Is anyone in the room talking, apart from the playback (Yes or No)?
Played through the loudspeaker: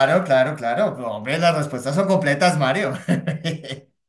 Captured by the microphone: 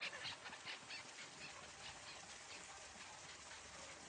No